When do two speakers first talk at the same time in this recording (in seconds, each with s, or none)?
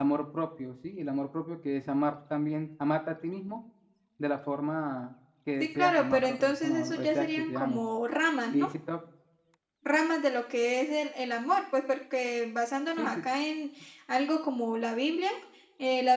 5.6 s